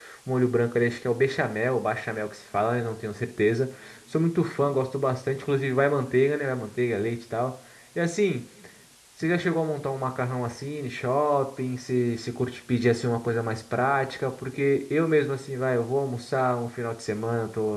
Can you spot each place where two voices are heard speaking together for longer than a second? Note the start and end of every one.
none

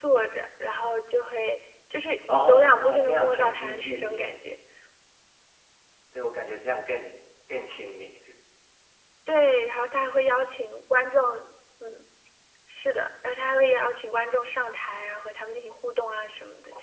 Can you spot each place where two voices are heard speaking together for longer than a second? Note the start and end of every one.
2.3-4.3

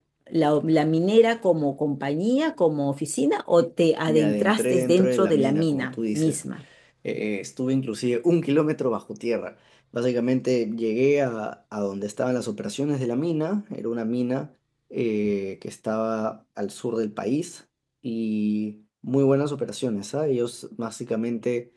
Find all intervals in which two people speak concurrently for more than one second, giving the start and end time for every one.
4.1-6.4

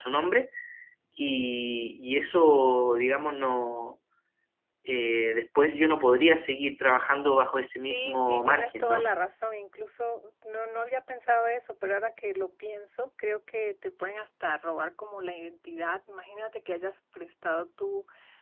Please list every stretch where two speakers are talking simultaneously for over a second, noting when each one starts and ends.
7.9-9.1

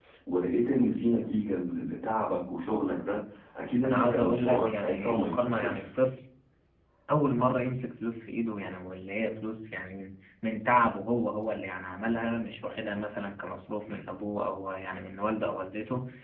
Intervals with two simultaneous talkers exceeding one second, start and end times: 3.9-5.8

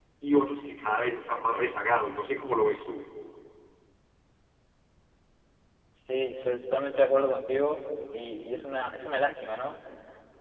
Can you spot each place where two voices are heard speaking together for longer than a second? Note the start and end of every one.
none

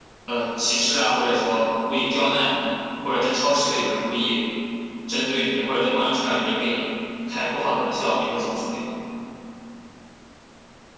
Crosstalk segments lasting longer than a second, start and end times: none

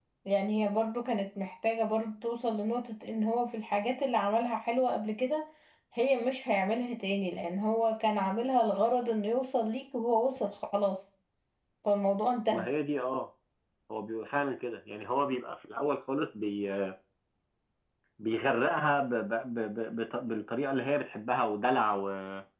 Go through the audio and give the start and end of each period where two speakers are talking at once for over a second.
none

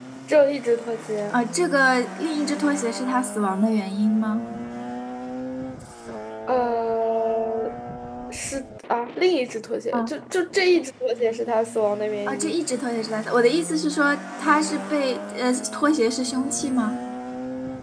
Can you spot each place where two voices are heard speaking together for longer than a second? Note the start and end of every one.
none

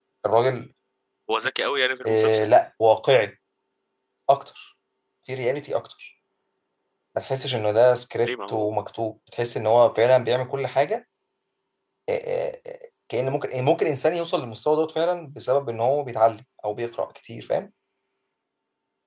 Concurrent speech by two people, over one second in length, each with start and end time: none

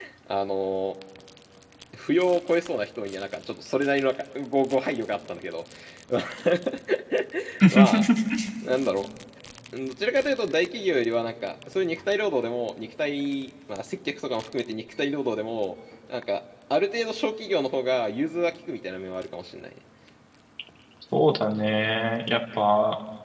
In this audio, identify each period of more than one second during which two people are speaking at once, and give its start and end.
none

